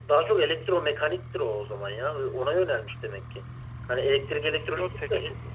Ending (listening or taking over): taking over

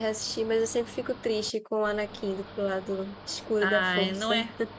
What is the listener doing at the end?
taking over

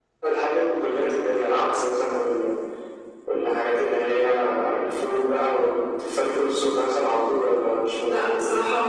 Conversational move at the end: taking over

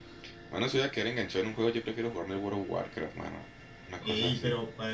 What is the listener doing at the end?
taking over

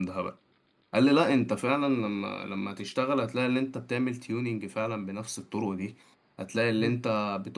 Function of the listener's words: listening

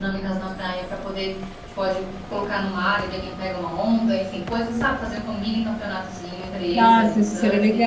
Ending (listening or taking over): taking over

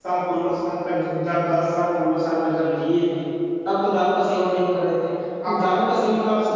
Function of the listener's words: listening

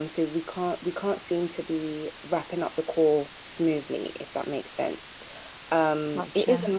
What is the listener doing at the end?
listening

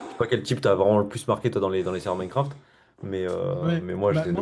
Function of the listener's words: taking over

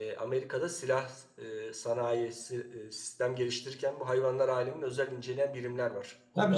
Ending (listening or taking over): taking over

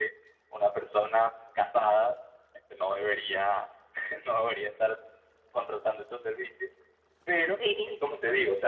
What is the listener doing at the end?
listening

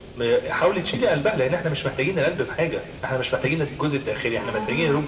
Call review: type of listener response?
taking over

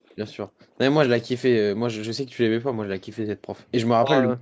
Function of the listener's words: listening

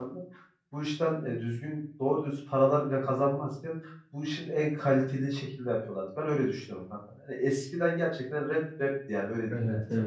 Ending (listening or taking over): taking over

